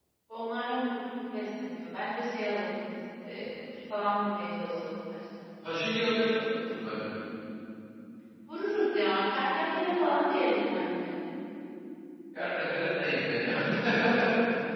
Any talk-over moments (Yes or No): No